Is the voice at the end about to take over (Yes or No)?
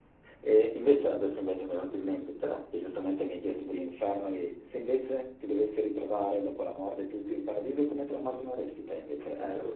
Yes